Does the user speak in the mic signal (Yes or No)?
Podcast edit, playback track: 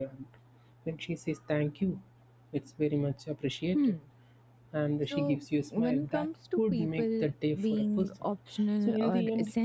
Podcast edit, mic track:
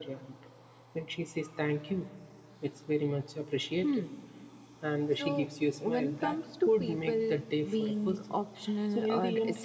No